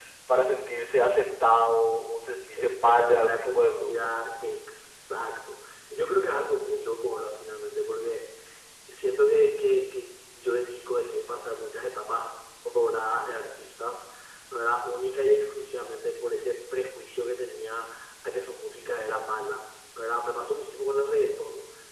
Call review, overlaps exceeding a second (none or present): present